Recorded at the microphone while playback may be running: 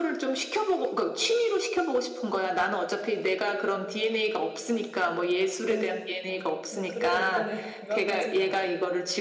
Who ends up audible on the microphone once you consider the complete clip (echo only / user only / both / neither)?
both